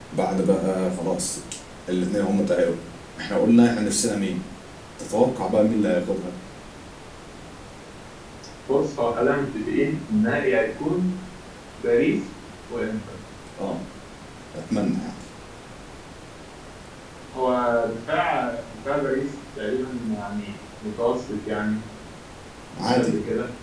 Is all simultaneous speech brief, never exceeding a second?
Yes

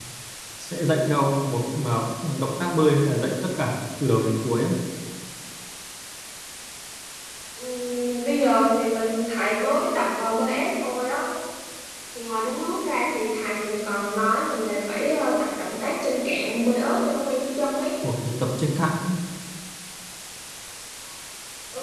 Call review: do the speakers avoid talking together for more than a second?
Yes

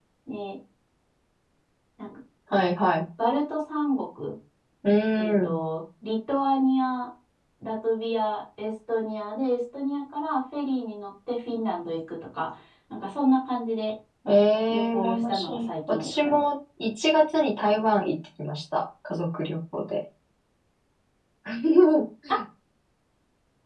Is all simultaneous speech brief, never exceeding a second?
No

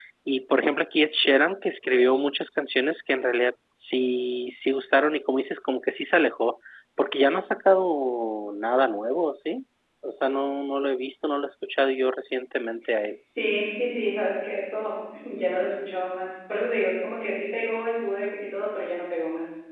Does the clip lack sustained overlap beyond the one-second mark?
Yes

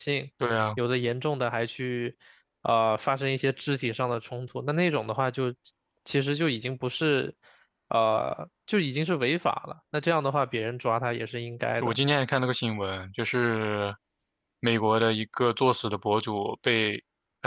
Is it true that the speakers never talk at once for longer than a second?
Yes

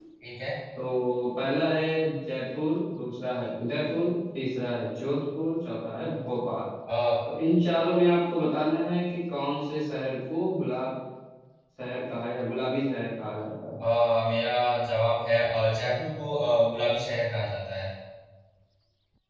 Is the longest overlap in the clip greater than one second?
No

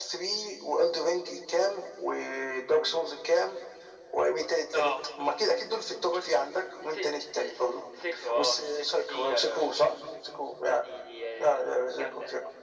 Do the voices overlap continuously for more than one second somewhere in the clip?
Yes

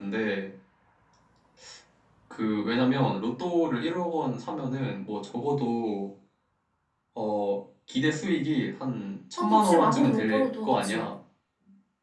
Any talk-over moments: Yes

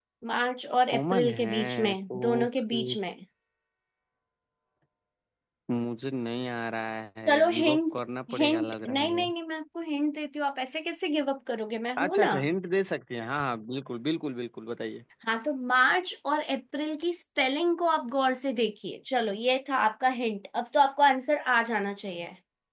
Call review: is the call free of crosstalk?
No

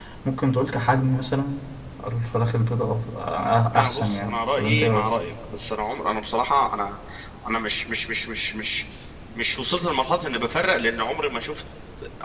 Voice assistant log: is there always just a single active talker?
No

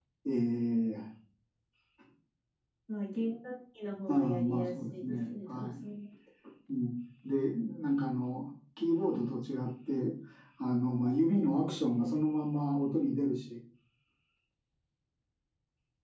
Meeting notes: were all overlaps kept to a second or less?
No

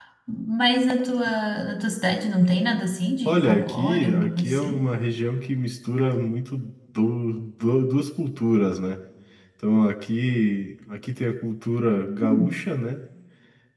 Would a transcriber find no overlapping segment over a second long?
No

